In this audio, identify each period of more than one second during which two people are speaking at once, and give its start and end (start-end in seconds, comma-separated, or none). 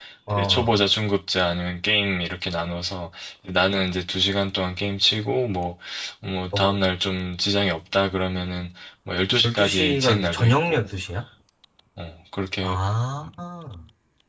9.4-10.8